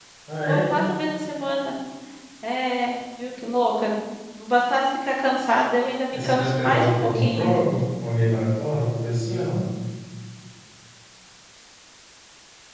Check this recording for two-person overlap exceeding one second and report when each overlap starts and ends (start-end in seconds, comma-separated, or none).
6.1-7.5